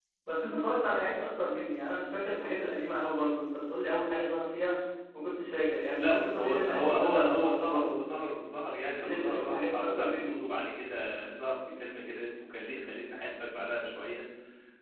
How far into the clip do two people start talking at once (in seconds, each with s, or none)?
6.0 s